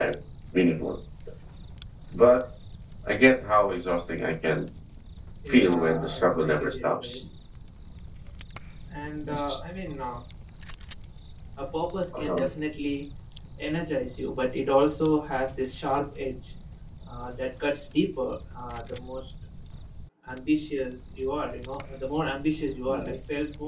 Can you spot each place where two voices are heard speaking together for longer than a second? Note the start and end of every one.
5.4-7.2

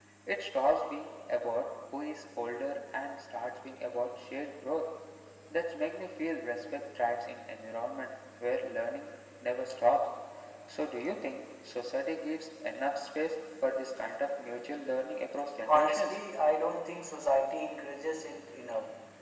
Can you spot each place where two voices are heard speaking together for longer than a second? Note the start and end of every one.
none

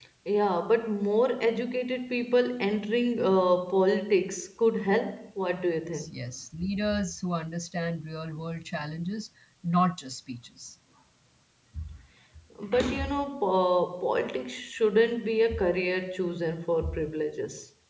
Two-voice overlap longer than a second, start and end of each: none

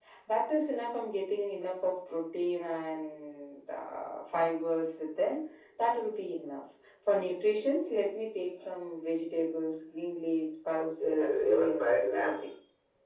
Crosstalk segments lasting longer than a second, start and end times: 10.8-12.5

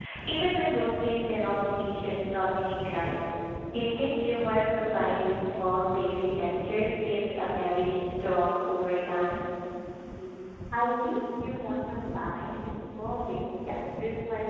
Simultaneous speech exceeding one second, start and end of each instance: none

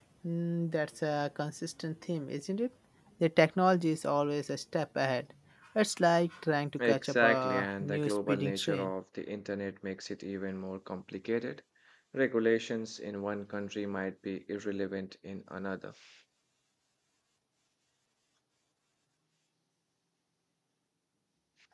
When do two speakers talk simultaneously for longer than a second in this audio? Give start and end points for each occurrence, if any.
6.8-8.9

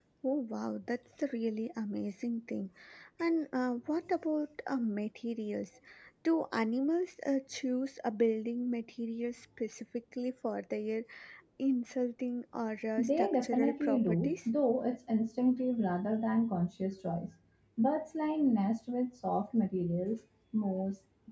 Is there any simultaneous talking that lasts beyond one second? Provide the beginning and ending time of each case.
13.0-14.4

